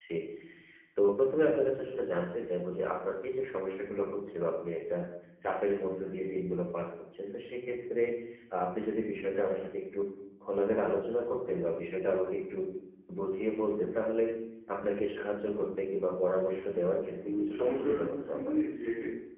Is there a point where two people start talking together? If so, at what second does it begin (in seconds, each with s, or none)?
17.2 s